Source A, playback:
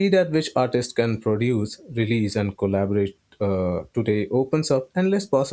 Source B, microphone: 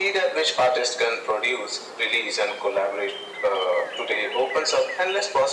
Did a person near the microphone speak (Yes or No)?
No